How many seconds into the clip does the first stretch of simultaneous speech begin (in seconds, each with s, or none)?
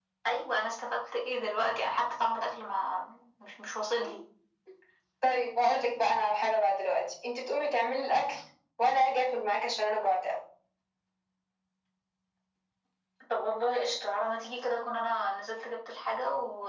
none